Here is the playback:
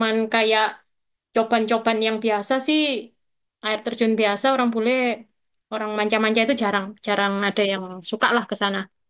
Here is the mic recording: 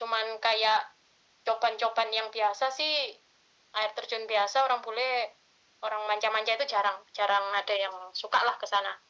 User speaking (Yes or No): No